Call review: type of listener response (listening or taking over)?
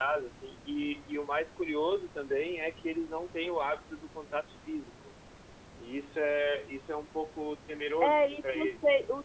taking over